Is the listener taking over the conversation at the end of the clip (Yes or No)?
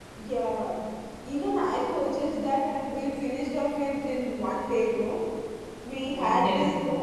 No